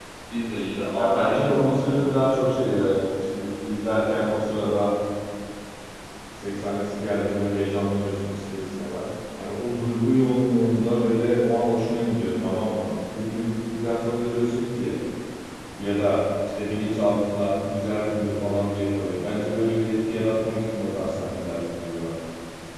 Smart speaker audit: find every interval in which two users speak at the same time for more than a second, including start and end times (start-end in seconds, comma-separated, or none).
0.9-2.2